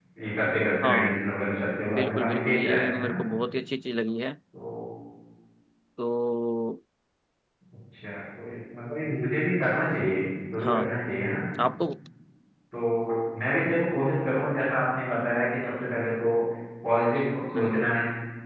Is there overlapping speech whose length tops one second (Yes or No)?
Yes